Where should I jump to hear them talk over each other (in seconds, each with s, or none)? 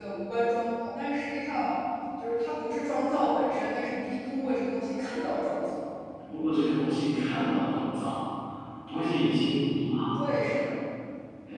none